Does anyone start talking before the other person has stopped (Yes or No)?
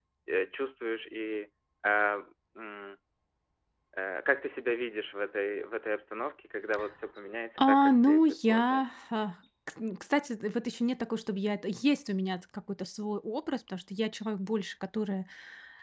Yes